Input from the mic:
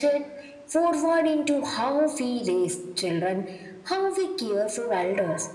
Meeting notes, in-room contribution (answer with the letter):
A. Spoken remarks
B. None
B